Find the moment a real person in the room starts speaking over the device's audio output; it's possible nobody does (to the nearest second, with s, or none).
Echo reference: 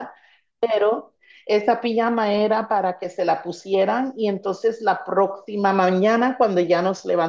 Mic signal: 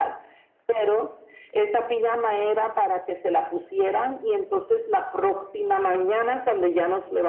none